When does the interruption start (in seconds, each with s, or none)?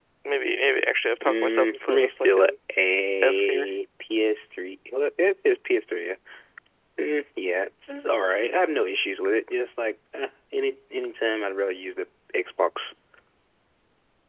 1.2 s